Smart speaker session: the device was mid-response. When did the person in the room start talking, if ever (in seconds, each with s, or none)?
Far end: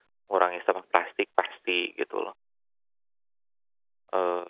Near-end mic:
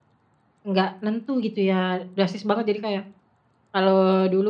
0.7 s